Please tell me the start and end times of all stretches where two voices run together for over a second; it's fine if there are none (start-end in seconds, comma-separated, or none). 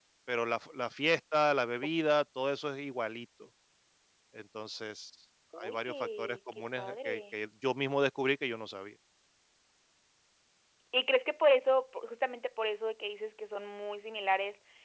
5.6-7.4